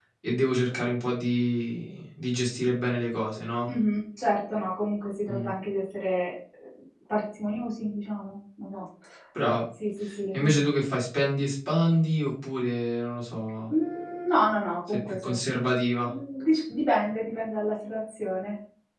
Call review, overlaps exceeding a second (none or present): none